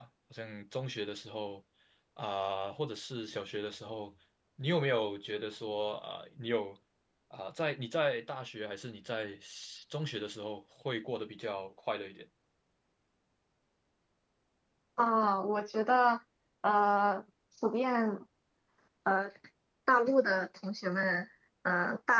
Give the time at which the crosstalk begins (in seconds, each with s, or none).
none